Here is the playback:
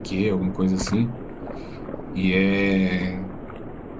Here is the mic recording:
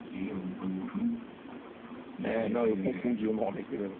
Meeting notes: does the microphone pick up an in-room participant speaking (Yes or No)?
Yes